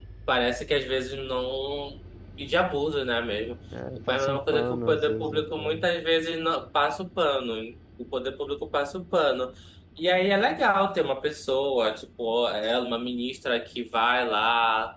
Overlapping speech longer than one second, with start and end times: 4.1-5.6

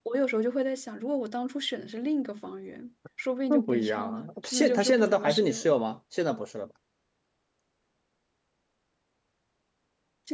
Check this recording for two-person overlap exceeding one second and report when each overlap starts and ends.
3.5-5.8

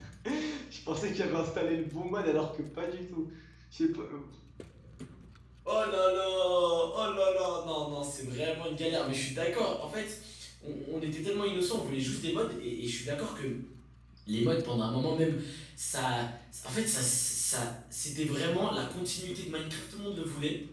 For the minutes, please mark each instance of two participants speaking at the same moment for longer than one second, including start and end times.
none

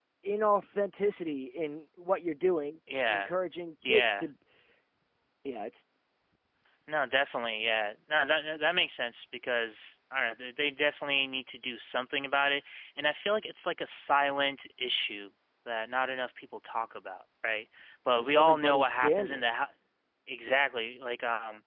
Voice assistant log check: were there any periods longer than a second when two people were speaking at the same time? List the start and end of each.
18.2-19.5

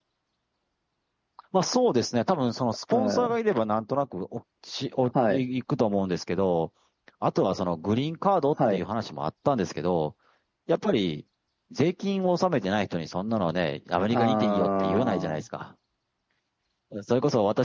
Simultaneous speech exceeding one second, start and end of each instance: 14.1-15.4

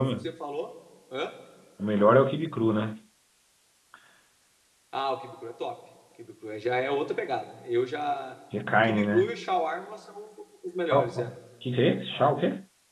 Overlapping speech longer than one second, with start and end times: none

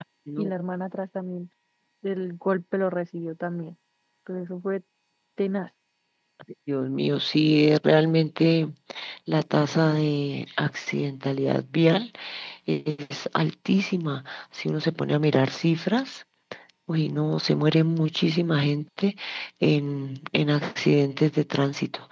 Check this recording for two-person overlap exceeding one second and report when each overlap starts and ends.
none

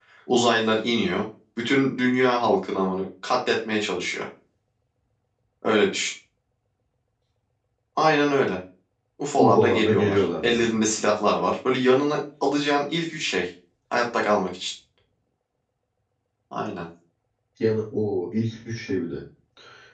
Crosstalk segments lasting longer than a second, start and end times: 9.4-10.7

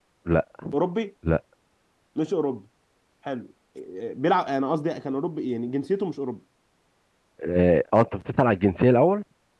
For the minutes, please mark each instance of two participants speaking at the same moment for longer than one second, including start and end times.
none

